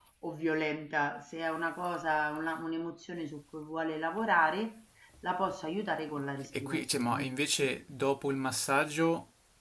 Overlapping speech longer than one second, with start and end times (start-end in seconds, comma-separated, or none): 6.5-7.7